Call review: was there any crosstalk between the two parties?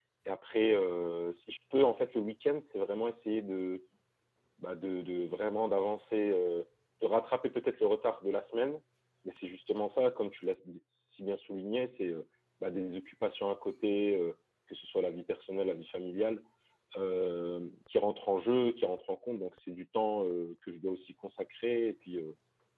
No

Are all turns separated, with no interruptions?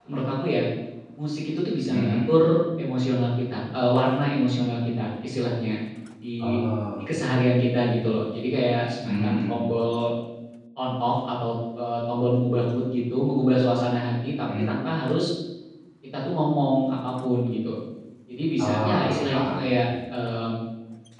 No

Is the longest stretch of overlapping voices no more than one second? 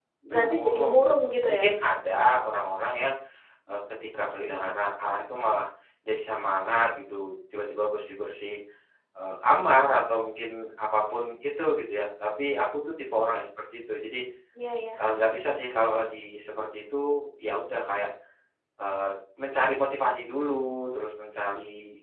No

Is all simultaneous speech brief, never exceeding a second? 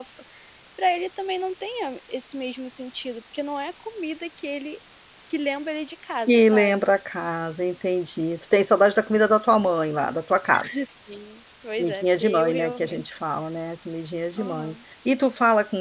No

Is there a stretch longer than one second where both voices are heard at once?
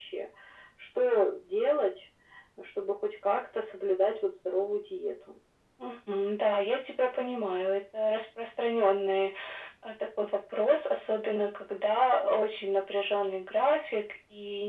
No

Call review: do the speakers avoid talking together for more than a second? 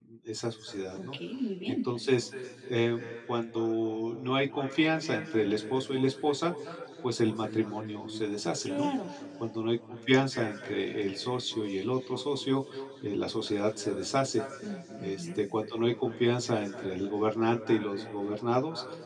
Yes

